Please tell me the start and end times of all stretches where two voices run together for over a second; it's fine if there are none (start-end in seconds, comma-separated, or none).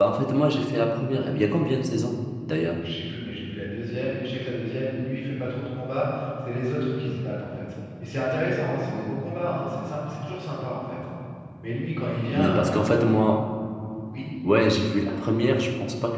none